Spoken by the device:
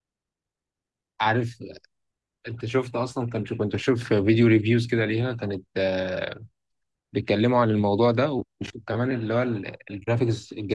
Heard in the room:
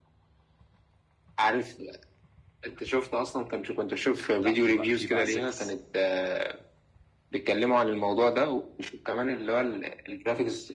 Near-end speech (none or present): present